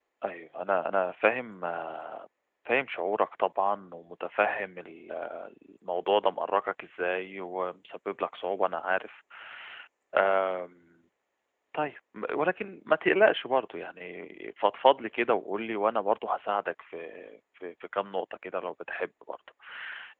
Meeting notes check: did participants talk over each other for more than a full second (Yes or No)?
No